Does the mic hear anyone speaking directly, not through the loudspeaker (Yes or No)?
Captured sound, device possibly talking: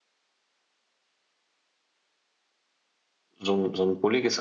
Yes